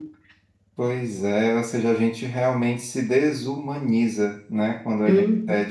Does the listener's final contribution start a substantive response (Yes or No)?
No